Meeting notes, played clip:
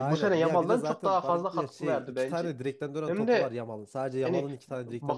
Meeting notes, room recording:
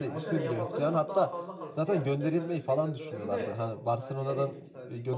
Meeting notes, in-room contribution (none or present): present